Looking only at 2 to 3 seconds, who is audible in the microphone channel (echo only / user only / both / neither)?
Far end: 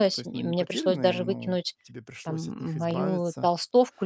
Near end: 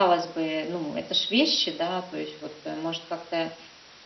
user only